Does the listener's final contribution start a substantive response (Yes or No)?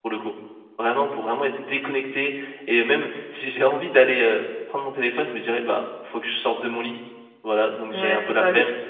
Yes